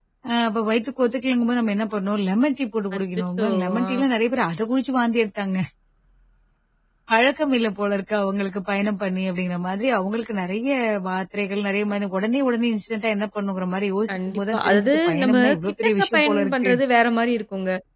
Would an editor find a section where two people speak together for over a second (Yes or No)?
Yes